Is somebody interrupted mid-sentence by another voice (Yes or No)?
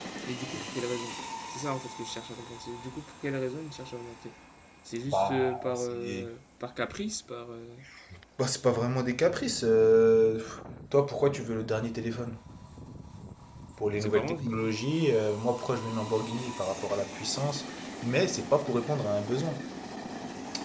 Yes